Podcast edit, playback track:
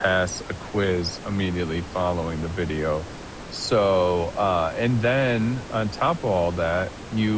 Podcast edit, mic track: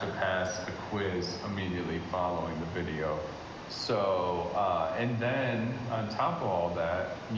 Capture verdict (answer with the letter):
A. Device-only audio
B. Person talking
A